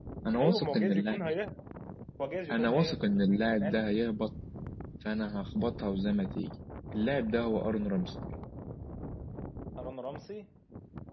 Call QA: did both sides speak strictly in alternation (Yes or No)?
No